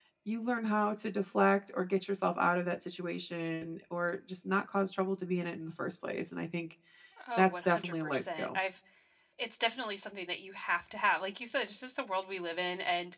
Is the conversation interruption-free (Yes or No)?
No